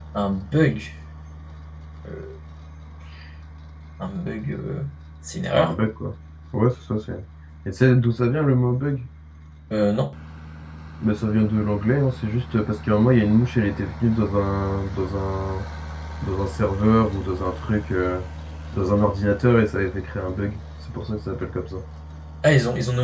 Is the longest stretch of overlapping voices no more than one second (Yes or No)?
Yes